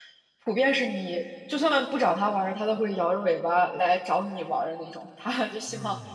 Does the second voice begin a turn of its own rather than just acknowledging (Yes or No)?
No